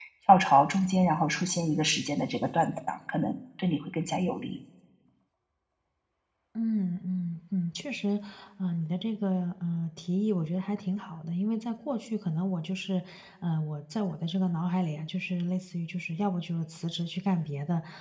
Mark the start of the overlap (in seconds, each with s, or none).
none